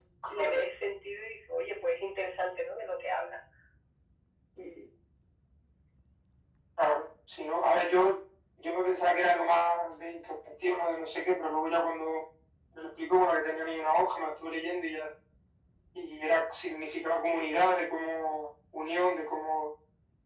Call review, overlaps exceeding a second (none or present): none